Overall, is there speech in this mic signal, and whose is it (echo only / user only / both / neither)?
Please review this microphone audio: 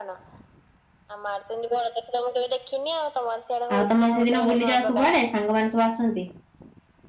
both